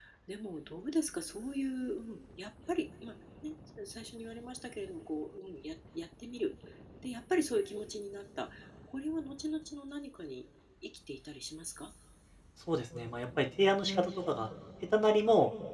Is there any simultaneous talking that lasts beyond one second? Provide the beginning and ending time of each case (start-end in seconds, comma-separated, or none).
none